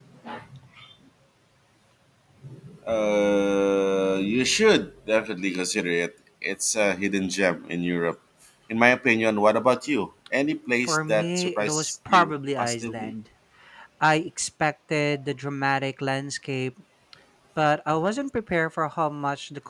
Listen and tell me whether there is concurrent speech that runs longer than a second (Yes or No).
Yes